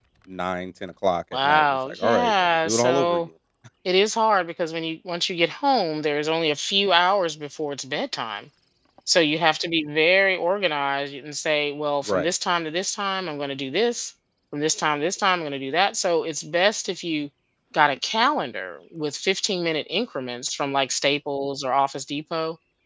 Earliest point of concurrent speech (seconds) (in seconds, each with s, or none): 1.3 s